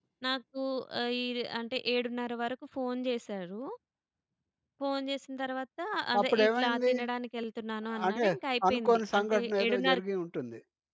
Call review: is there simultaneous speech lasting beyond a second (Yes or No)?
Yes